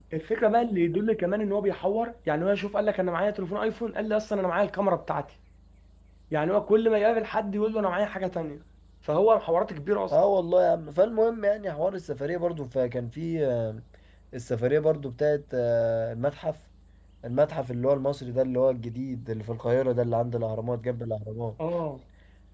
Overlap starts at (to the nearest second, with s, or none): none